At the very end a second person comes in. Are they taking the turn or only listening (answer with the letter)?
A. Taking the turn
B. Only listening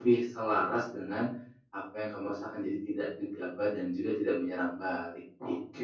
A